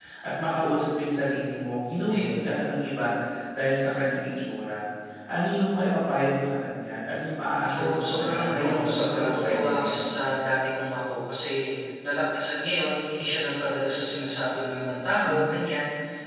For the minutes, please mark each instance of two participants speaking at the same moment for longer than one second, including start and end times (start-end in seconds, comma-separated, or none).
7.6-10.0